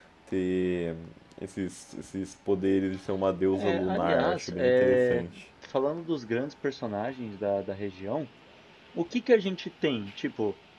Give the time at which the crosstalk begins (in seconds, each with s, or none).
3.5 s